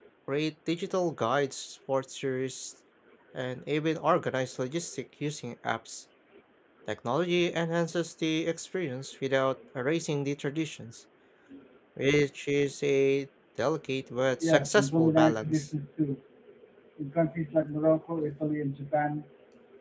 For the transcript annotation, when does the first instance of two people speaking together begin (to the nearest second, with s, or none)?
14 s